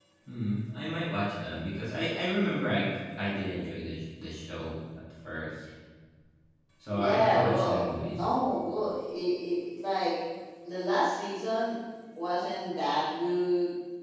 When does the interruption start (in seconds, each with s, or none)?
6.9 s